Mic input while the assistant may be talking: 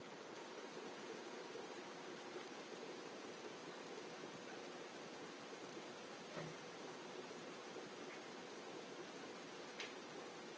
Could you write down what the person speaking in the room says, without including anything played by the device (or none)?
none